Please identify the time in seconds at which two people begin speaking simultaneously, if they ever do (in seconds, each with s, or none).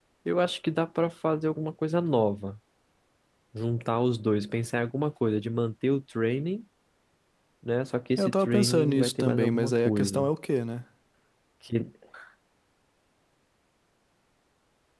8.2 s